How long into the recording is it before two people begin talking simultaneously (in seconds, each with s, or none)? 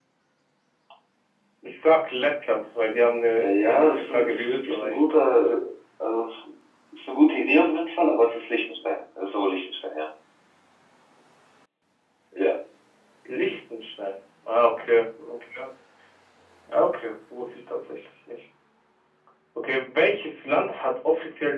3.4 s